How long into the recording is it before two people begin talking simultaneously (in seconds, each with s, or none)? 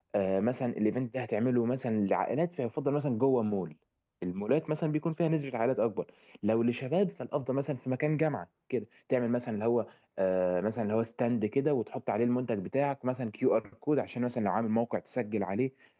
none